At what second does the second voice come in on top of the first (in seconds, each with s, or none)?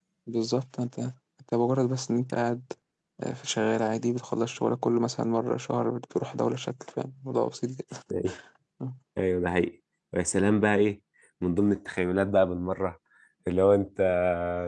none